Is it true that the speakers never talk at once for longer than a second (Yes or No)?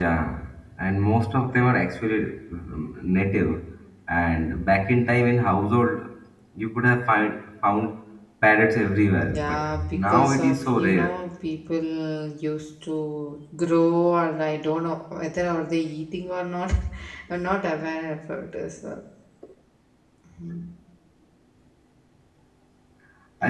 No